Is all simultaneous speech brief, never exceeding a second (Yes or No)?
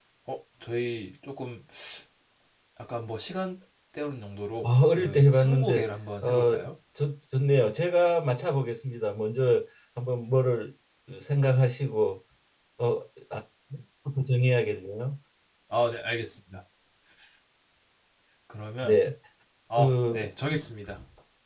No